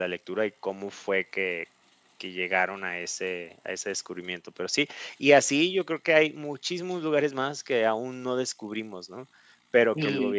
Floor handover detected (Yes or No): No